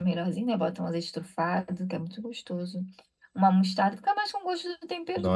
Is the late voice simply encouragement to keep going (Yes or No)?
No